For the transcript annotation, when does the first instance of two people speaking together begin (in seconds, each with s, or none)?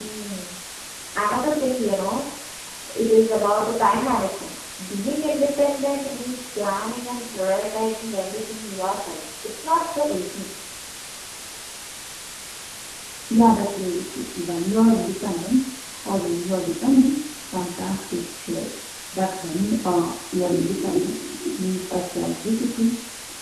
none